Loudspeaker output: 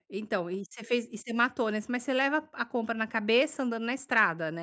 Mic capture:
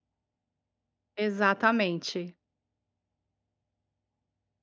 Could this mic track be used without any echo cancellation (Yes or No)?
Yes